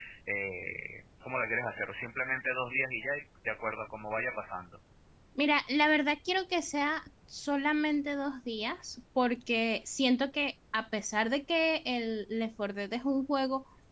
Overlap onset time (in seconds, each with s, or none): none